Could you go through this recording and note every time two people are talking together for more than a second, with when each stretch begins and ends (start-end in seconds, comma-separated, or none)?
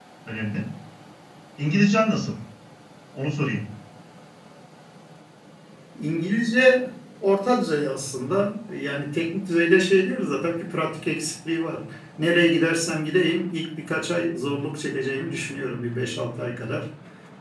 none